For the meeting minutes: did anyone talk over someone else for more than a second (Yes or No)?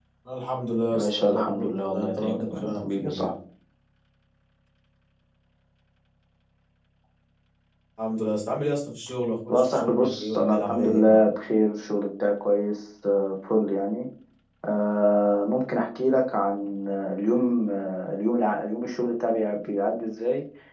Yes